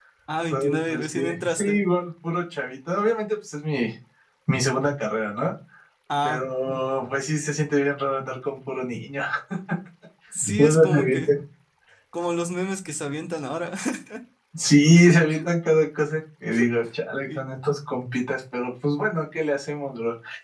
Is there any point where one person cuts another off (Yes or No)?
Yes